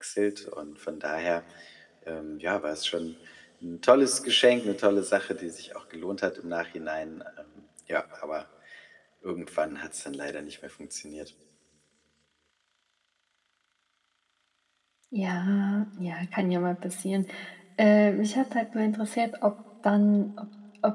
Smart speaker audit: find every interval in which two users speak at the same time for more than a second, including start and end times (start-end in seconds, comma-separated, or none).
none